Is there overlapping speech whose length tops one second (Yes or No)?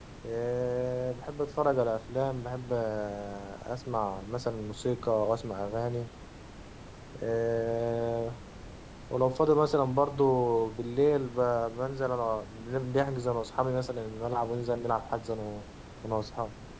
No